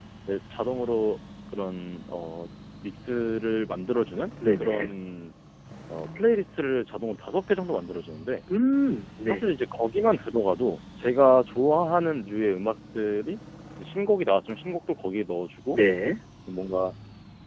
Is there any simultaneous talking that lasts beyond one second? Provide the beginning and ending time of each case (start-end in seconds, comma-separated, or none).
none